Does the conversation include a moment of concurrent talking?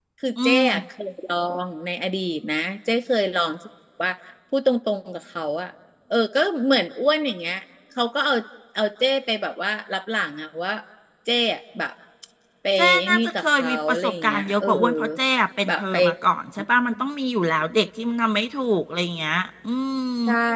Yes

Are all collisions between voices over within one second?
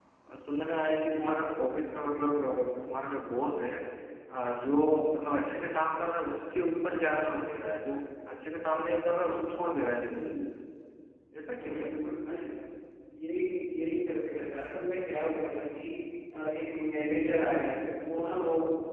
Yes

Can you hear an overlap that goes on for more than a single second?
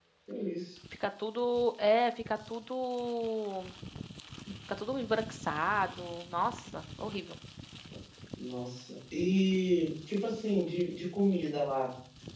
No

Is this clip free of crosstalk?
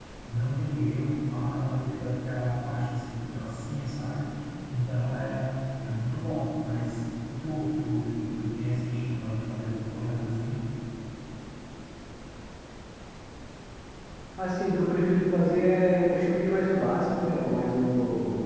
Yes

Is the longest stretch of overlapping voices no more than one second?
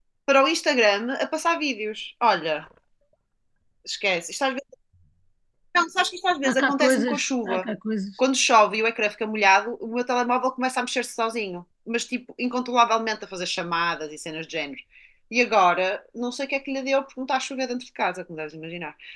No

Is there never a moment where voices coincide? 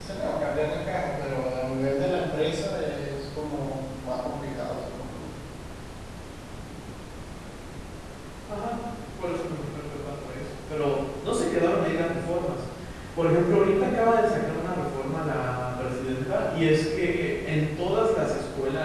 Yes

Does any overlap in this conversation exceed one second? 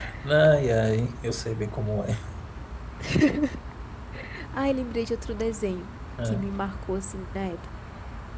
No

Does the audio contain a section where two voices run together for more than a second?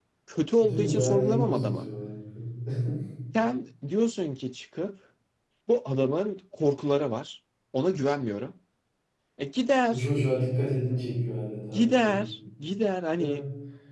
Yes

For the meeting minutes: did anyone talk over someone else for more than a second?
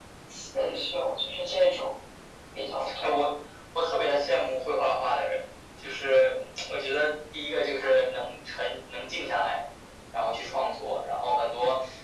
No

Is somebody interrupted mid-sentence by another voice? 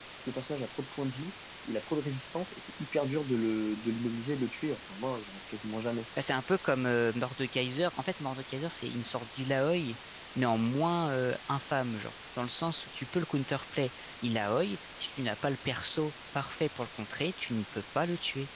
No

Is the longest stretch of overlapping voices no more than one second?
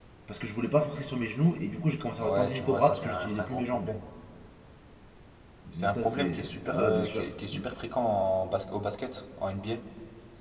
No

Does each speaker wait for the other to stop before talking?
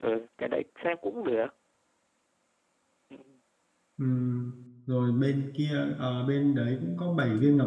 Yes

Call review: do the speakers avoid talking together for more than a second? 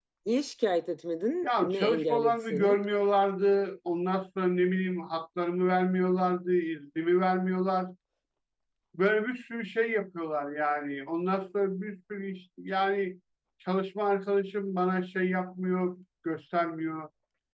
No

